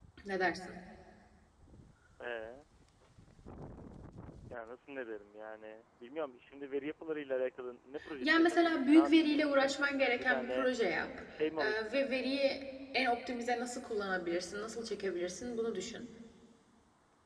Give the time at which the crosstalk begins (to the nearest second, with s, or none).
8 s